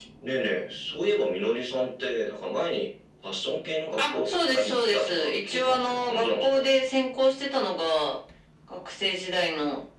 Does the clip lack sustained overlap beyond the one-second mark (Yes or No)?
No